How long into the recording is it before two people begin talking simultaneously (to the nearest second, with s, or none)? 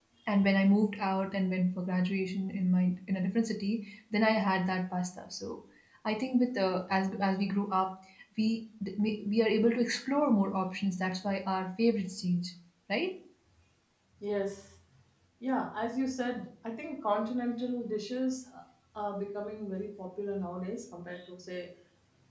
none